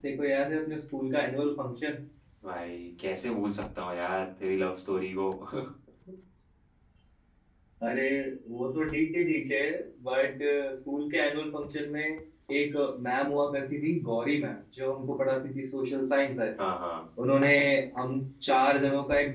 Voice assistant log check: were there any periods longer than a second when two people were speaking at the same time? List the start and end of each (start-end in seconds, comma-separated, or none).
none